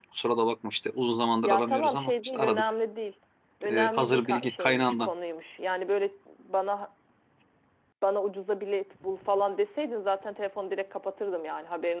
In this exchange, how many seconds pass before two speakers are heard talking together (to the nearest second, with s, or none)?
1 s